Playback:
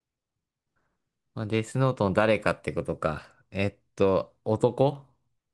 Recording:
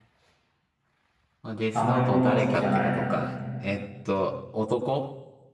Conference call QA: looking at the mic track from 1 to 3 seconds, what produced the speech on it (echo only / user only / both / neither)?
both